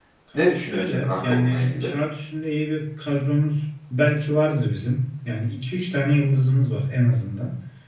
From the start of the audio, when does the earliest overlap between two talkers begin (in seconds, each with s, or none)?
0.5 s